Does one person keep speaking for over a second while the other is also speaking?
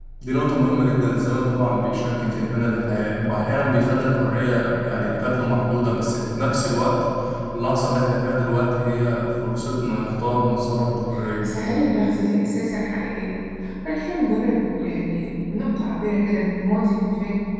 No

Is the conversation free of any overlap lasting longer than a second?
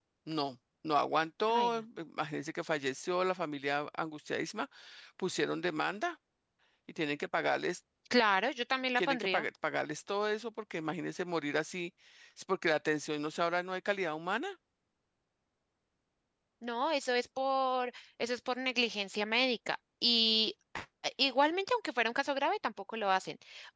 Yes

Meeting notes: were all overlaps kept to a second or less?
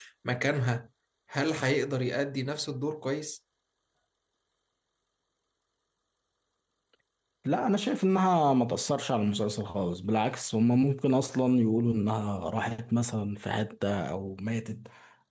Yes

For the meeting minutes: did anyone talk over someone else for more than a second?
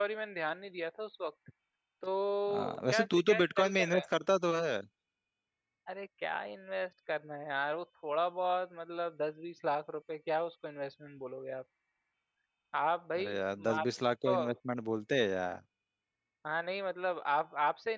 Yes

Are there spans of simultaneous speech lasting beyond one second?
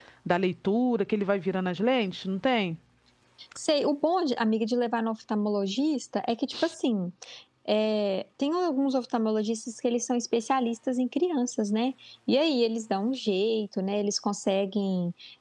No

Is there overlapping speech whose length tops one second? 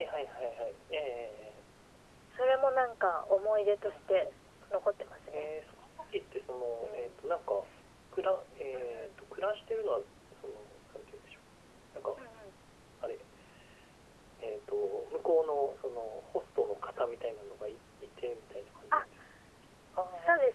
No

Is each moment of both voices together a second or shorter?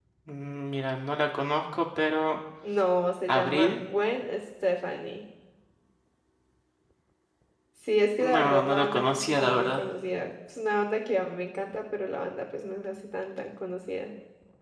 No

